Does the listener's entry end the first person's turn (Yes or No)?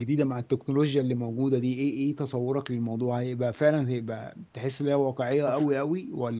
No